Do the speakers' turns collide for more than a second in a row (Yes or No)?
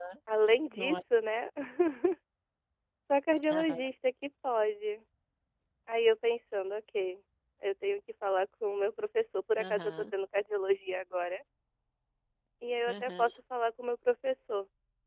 No